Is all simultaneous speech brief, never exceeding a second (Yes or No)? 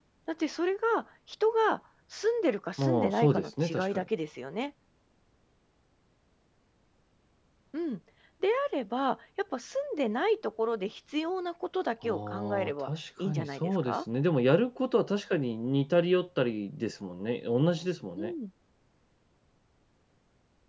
No